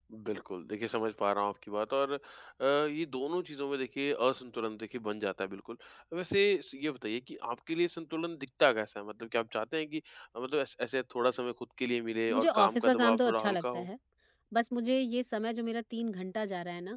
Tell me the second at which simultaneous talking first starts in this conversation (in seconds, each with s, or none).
12.3 s